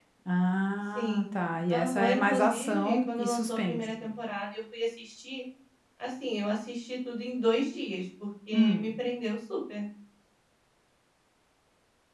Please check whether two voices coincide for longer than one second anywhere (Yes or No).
Yes